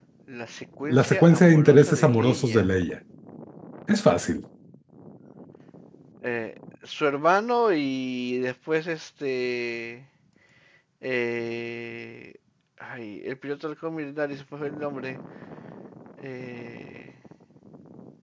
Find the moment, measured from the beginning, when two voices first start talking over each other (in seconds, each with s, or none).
0.9 s